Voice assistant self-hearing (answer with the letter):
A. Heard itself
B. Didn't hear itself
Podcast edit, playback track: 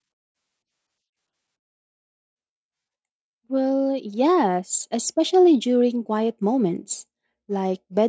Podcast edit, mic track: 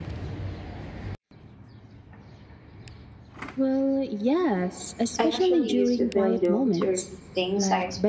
A